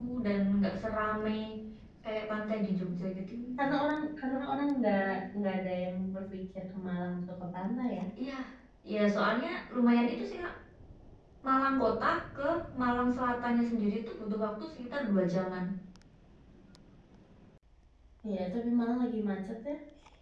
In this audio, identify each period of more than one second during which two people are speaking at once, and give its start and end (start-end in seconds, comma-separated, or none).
none